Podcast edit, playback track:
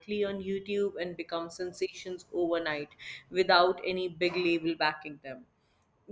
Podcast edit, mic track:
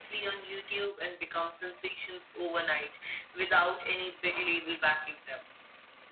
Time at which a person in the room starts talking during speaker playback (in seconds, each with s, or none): none